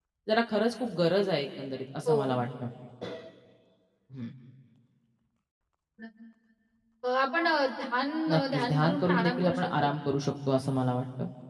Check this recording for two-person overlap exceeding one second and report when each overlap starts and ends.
8.3-9.7

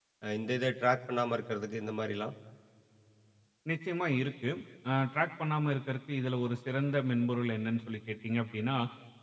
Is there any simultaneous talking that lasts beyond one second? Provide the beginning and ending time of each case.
none

